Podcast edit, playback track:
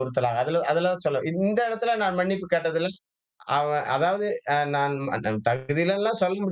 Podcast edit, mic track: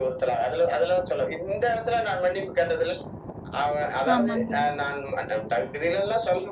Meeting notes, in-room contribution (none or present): present